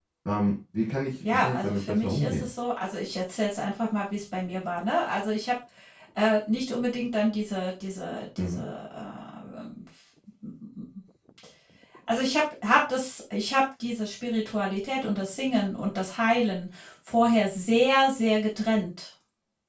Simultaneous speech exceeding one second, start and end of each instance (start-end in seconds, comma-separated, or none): 1.2-2.5